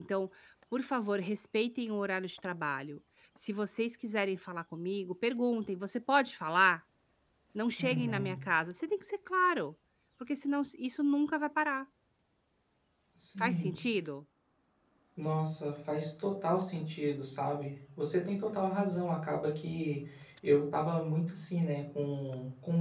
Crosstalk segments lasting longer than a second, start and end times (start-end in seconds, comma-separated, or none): none